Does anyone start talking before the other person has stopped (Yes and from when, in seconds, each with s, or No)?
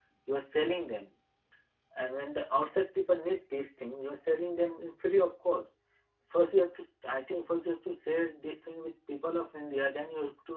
No